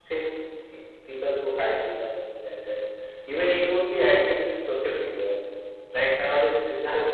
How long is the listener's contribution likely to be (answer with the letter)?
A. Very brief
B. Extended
B